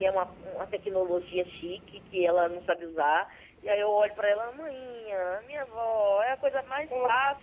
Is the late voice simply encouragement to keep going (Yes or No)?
Yes